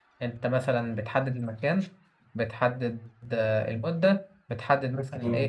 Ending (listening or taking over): listening